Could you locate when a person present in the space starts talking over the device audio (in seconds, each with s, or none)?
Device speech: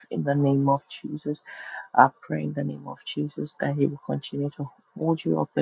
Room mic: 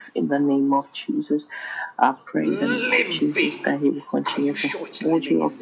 2.4 s